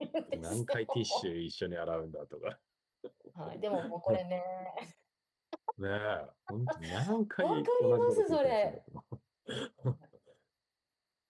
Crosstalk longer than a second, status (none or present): present